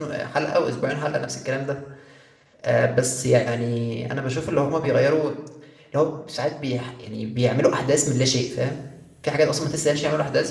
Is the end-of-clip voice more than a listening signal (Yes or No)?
No